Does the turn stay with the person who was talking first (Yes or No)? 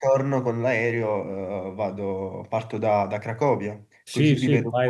No